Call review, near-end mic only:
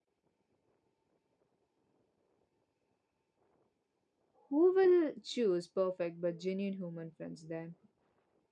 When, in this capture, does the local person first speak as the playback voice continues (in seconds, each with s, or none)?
4.5 s